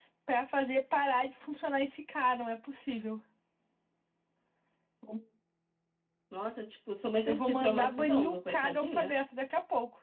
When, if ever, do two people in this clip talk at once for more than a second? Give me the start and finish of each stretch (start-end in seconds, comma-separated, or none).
7.2-9.1